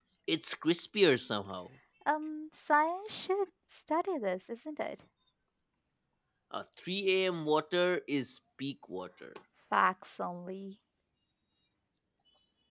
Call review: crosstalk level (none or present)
none